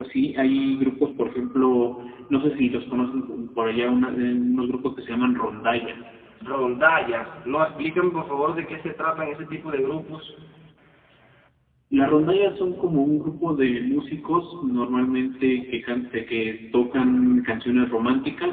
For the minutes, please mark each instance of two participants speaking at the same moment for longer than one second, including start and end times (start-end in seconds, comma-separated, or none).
none